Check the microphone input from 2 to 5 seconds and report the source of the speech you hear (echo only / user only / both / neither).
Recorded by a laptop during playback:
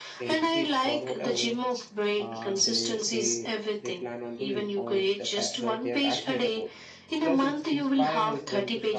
both